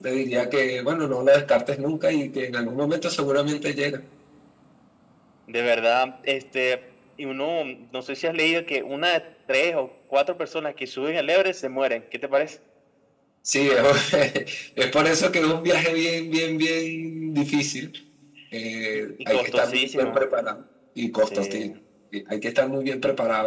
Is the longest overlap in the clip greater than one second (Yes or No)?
Yes